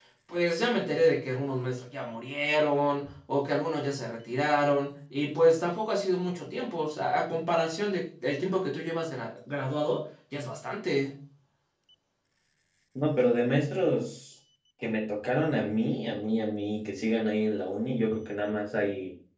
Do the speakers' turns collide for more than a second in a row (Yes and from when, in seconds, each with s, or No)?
No